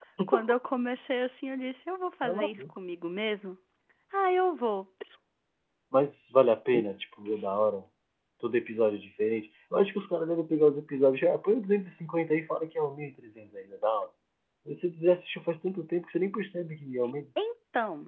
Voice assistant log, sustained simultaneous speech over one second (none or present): none